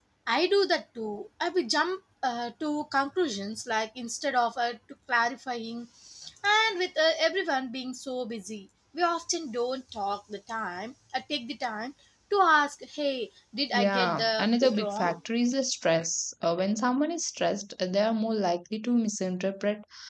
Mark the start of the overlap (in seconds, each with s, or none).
13.7 s